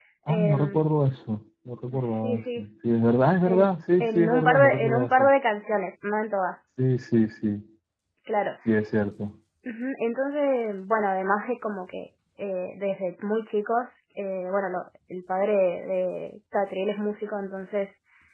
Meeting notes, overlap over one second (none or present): present